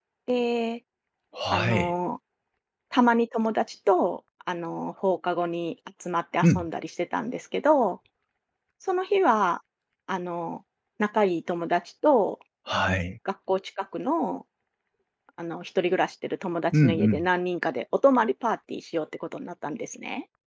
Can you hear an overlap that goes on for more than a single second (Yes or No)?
No